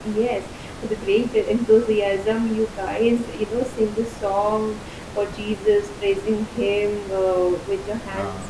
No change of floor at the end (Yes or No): Yes